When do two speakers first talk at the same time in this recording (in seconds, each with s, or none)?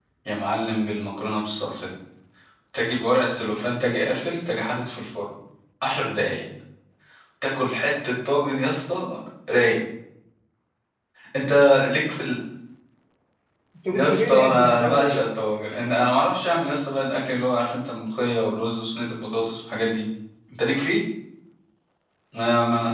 13.9 s